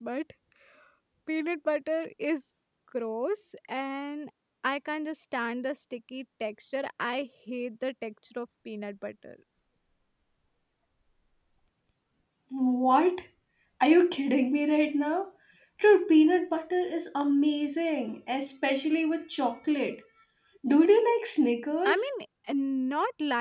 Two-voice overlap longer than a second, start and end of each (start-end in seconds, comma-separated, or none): none